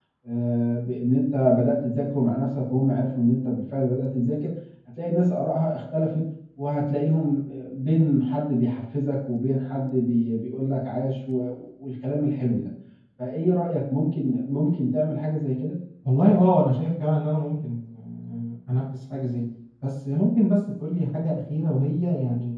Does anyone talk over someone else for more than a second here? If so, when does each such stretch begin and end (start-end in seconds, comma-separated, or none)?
none